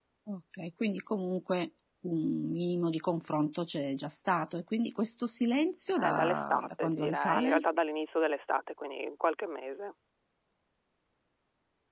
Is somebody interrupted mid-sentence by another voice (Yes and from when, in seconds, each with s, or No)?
Yes, from 6.0 s